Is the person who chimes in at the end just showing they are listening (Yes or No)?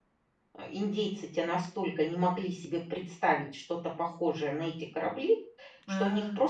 Yes